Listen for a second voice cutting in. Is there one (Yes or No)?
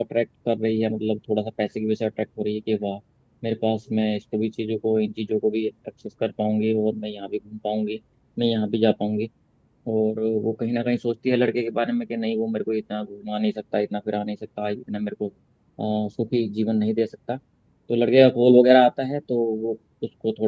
No